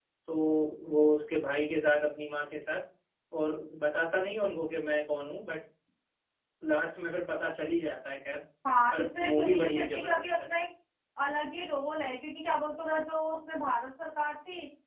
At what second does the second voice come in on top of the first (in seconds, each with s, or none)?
8.9 s